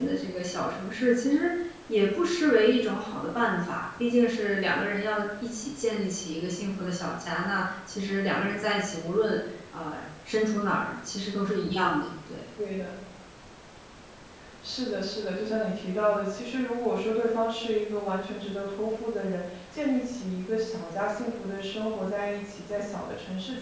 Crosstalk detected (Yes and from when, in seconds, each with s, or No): No